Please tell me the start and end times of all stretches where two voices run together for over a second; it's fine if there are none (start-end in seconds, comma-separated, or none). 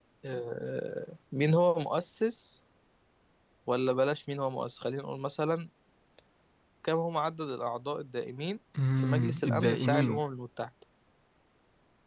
9.0-10.2